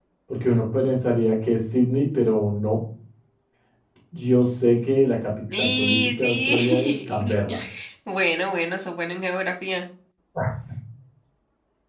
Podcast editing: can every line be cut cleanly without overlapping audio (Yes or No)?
No